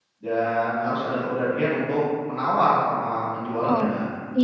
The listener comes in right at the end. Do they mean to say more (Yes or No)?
Yes